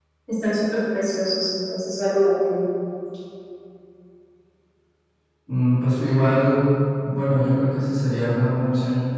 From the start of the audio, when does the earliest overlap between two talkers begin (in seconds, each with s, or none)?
none